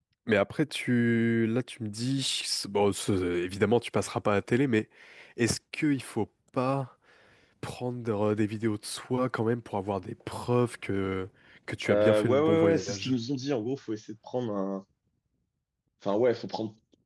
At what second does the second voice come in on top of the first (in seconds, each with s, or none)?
11.9 s